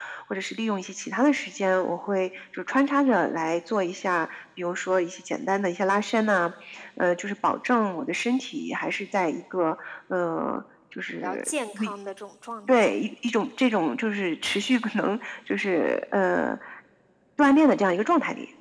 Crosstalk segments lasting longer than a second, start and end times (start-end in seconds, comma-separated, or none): none